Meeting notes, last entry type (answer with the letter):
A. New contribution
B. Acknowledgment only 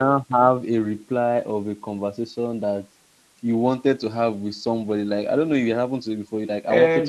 A